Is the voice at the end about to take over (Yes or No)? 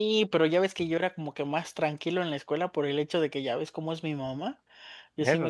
No